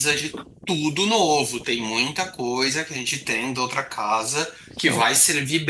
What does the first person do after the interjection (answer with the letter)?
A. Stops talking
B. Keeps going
B